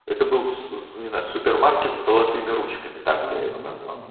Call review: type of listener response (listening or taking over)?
taking over